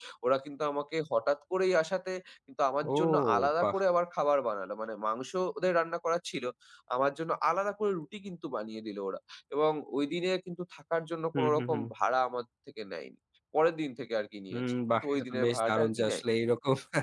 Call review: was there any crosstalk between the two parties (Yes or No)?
Yes